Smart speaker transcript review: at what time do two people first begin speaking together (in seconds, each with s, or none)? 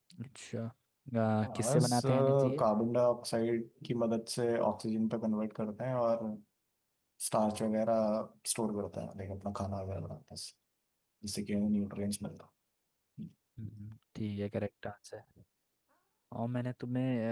1.4 s